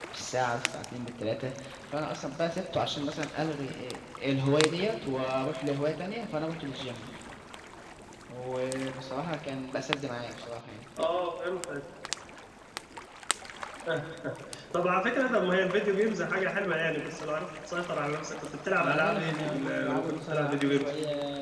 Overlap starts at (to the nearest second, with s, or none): 19 s